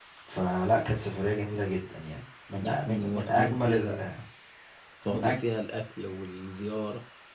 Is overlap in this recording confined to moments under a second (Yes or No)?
No